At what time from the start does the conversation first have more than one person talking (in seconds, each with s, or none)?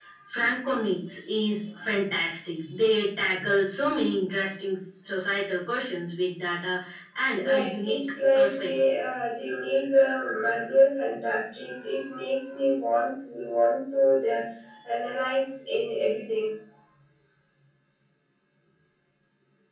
7.4 s